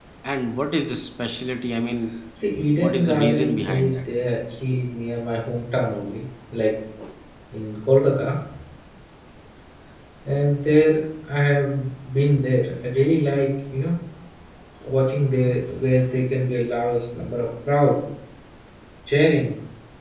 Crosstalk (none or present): present